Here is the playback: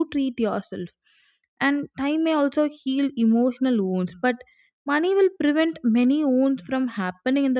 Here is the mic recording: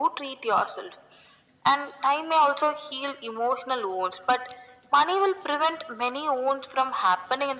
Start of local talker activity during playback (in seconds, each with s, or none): none